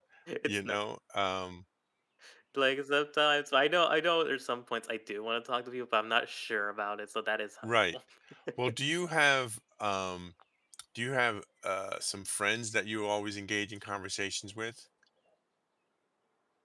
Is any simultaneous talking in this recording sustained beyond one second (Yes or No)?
No